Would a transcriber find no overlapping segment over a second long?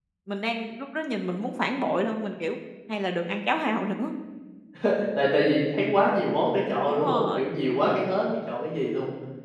Yes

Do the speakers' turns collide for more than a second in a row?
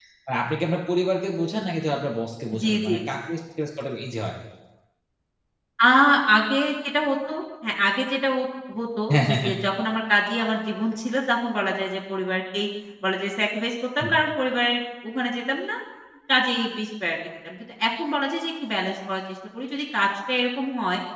No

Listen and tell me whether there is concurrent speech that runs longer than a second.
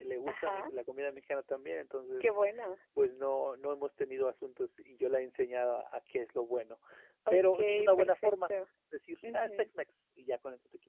Yes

